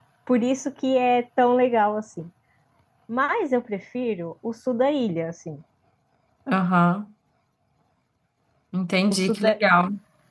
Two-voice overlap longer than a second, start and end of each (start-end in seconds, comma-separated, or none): none